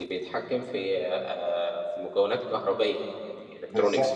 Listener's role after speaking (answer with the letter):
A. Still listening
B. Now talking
B